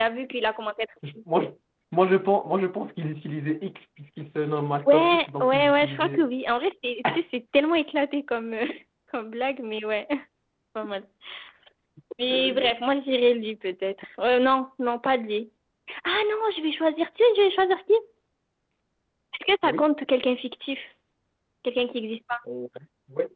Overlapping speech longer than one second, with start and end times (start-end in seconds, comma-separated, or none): 4.9-6.2